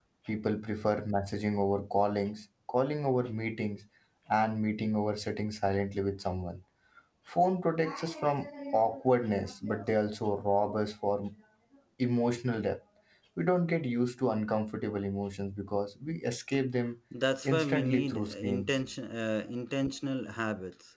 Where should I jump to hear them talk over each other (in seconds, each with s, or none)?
17.4 s